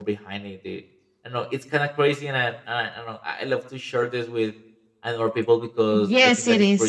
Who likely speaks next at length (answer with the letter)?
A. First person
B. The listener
B